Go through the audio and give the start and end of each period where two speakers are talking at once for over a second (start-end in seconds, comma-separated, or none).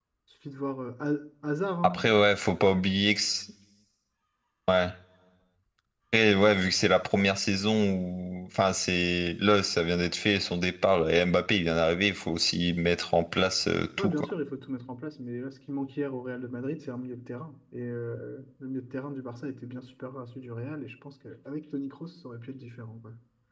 none